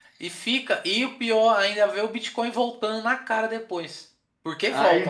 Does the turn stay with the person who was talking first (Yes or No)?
No